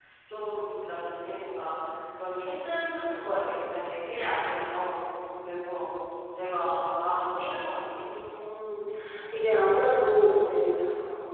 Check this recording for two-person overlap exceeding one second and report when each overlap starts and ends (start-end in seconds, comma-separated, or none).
none